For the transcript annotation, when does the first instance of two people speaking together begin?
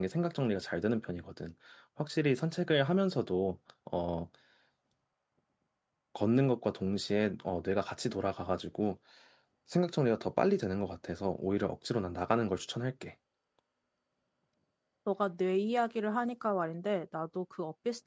none

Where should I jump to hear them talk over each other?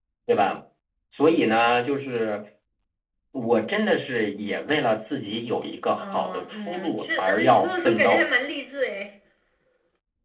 5.9 s

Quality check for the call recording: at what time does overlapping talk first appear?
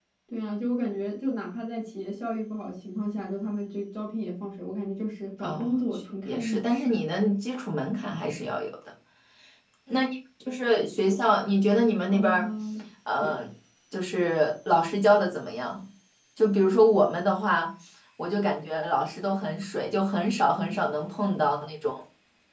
5.4 s

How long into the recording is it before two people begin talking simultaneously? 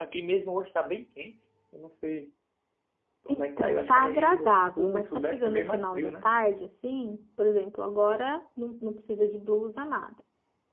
3.3 s

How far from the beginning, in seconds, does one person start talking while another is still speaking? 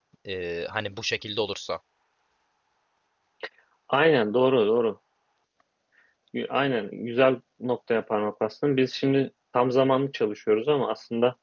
none

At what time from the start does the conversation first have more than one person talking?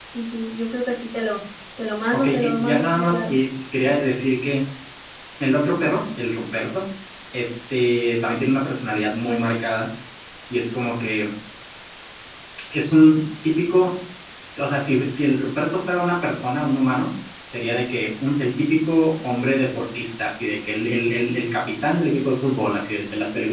2.1 s

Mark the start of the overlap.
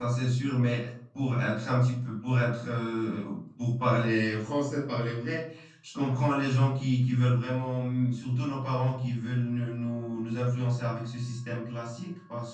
none

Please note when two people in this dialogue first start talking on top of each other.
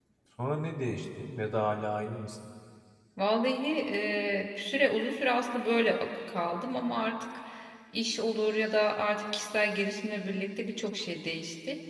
none

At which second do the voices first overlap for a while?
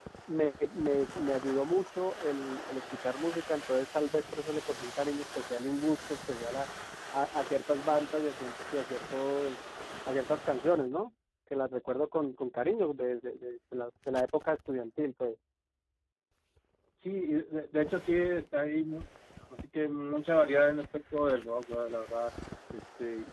none

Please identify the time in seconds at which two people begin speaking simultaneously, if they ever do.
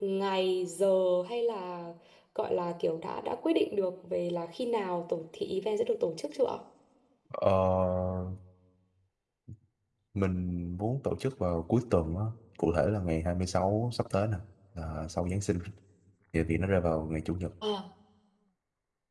none

